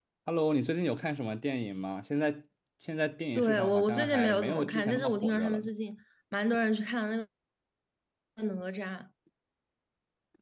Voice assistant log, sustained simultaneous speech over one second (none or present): present